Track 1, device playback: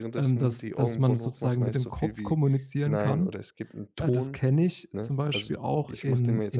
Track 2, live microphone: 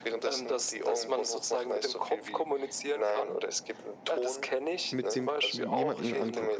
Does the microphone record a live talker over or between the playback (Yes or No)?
Yes